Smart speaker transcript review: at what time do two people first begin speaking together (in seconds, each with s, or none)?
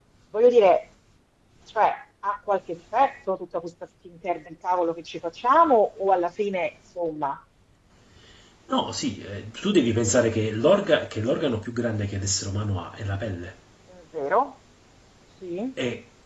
none